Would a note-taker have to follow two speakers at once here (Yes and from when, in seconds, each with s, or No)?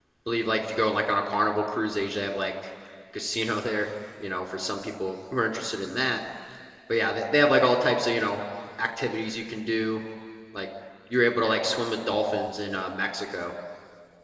No